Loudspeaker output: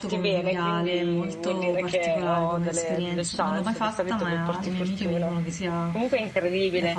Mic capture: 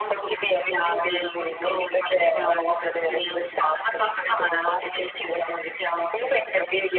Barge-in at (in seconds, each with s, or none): none